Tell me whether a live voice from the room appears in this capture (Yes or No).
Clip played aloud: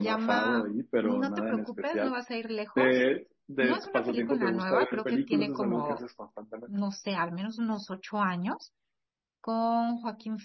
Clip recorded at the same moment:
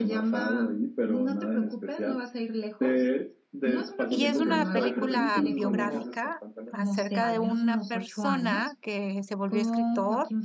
Yes